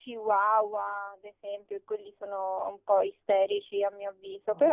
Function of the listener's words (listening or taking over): listening